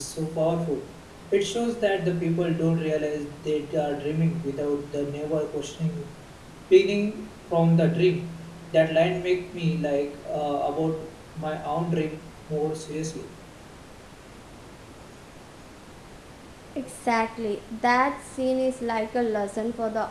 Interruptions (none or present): none